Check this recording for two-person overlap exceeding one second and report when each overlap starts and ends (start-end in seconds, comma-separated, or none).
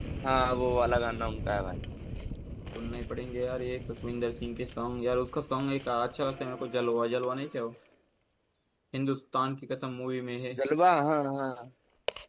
none